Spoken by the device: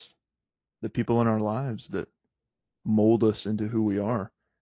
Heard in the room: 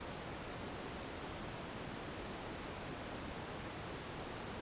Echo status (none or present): none